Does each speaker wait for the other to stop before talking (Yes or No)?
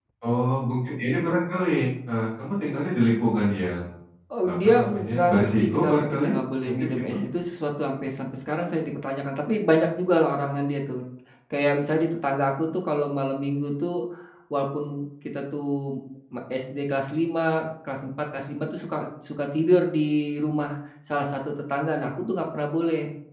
No